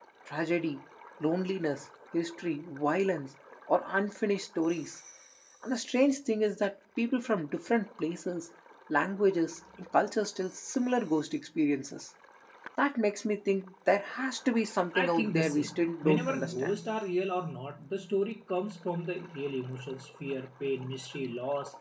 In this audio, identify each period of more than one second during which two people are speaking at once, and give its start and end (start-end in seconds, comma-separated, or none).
14.9-16.8